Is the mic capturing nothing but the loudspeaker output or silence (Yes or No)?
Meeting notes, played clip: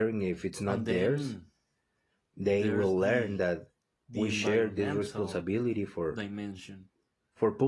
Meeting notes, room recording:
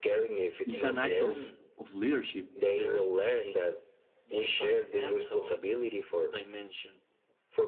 No